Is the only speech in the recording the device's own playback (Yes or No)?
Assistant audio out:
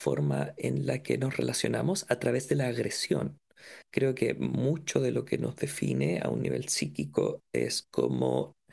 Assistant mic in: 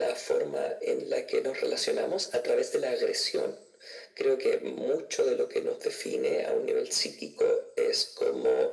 Yes